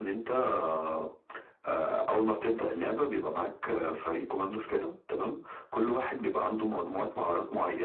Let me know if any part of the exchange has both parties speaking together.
No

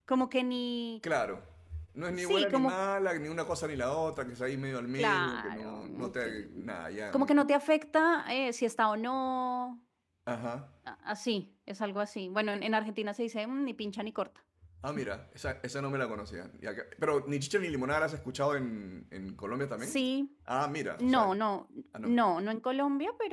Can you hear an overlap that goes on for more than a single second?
Yes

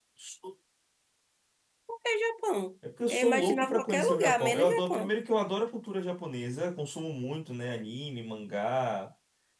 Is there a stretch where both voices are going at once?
Yes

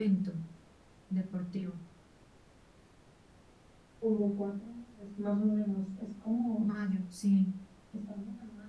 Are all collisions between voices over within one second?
Yes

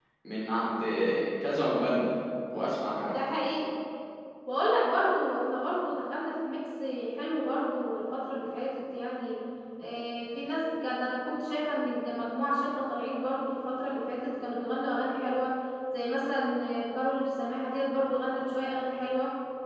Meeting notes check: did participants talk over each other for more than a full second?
No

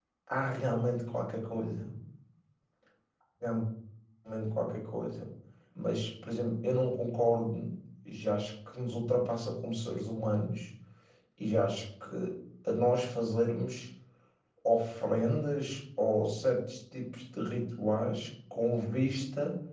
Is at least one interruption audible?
No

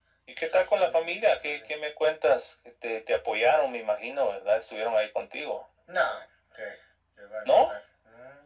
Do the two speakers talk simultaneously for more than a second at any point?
Yes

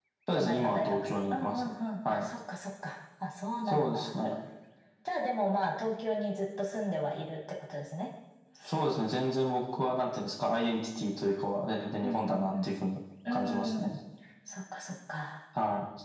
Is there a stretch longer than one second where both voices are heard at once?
Yes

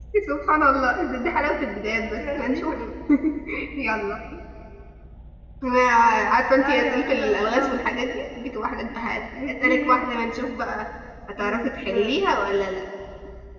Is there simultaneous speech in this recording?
Yes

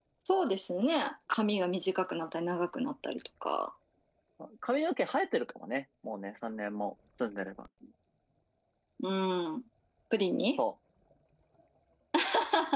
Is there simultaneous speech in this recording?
No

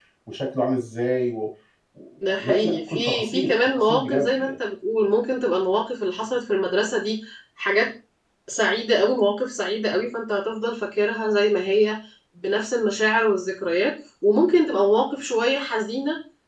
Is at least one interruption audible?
Yes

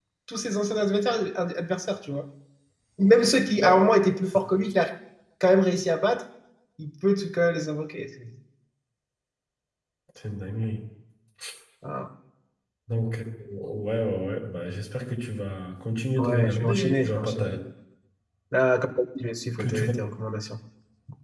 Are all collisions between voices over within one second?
No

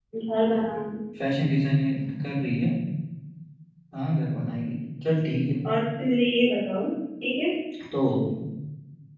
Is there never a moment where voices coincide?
Yes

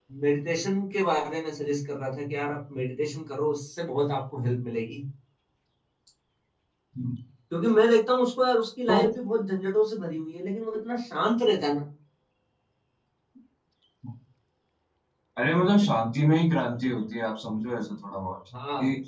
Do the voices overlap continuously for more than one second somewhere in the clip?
No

